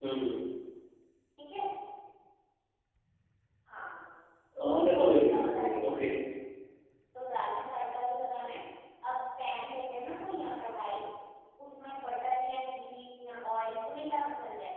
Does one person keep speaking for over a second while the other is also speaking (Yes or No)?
Yes